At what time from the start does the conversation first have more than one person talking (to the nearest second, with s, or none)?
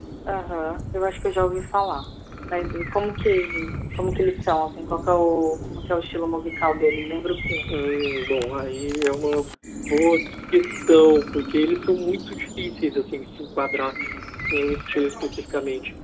none